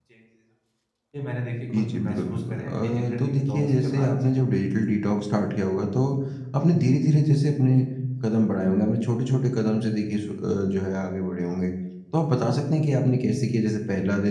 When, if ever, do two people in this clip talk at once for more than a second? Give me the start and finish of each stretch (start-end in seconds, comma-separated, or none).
1.7-4.3